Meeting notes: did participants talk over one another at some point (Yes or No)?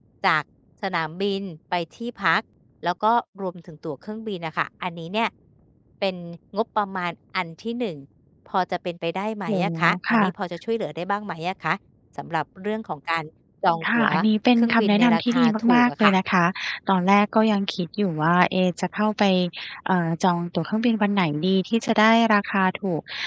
Yes